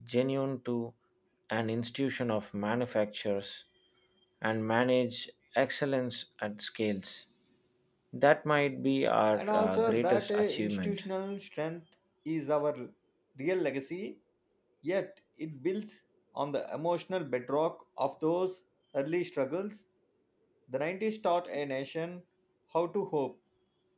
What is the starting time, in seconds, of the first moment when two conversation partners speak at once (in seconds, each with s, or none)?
9.3 s